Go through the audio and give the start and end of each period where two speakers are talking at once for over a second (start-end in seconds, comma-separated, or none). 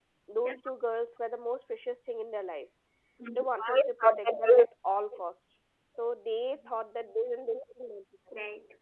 3.4-4.6